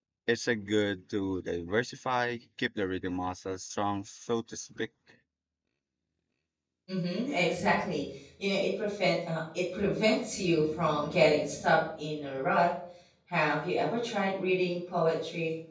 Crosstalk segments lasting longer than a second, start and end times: none

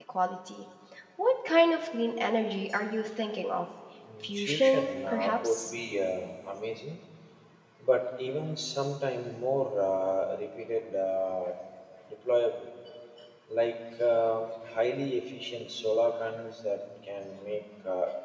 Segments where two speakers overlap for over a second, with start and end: 4.2-5.7

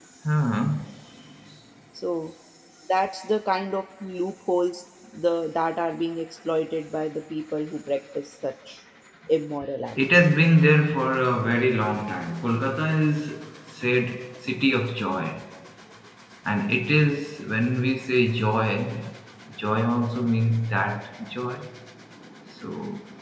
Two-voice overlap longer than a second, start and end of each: none

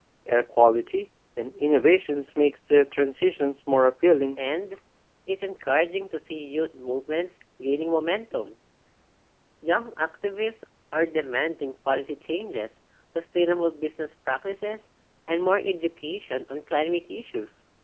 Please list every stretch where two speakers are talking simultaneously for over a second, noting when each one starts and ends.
none

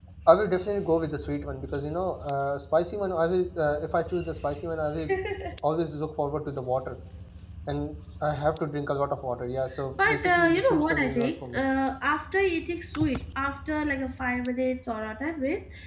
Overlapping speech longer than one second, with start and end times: 10.0-11.6

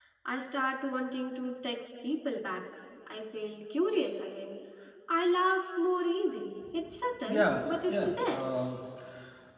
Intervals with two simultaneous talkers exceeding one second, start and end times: 7.3-8.5

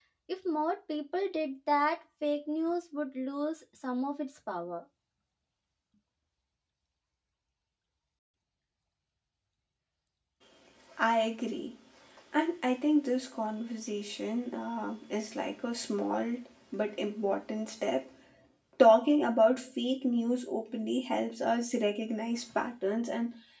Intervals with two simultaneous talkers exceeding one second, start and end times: none

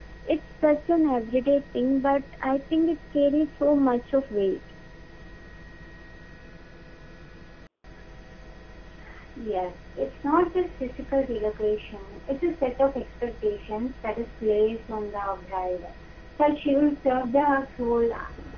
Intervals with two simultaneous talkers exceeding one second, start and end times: none

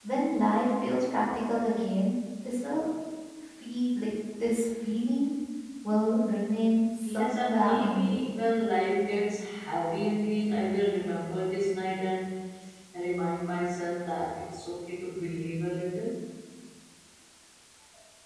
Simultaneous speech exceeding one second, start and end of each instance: 7.0-8.3

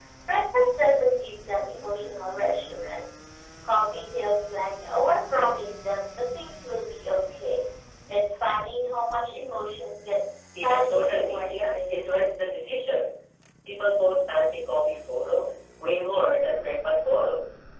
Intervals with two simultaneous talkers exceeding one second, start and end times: 10.6-12.2

